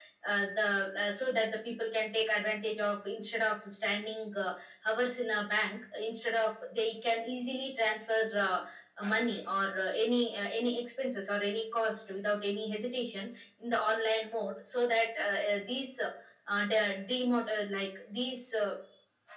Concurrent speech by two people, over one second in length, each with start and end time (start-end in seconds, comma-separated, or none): none